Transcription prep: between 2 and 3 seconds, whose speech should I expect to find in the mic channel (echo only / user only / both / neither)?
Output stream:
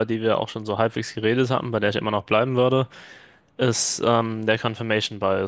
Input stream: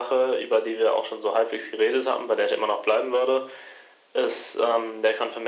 echo only